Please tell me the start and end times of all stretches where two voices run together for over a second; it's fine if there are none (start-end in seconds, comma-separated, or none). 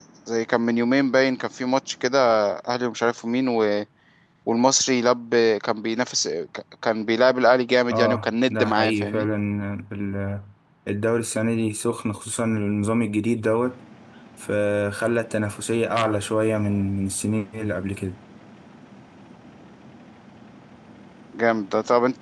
7.9-9.3